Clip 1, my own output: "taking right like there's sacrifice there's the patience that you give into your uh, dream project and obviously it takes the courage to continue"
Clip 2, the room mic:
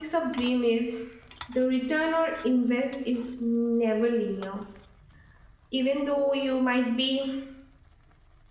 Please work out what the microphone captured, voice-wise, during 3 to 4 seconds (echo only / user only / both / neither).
user only